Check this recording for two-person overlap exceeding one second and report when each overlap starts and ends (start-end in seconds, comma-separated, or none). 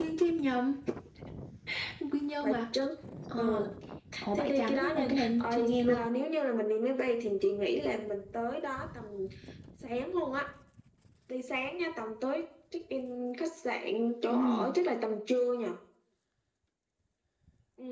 4.3-6.0